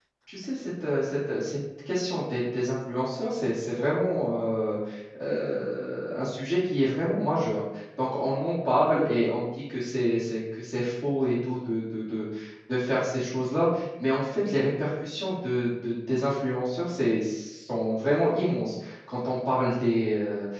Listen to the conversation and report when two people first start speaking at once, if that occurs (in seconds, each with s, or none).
none